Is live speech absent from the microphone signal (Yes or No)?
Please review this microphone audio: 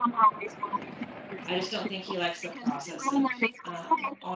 No